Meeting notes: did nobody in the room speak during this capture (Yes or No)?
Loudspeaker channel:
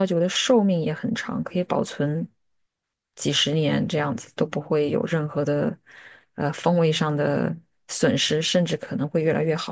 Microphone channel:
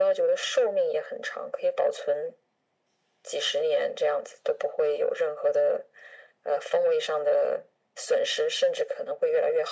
Yes